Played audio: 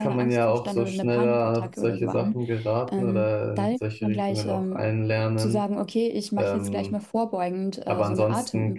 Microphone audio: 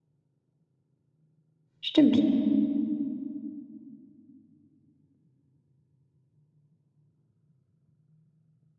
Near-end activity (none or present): present